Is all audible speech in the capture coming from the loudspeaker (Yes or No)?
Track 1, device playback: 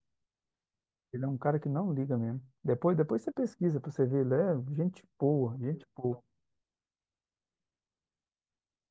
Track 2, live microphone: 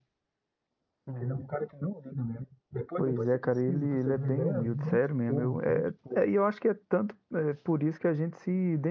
No